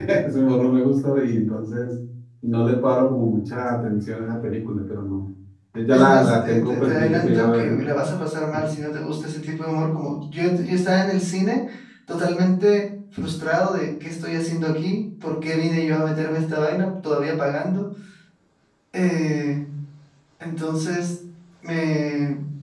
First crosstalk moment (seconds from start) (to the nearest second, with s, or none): 6 s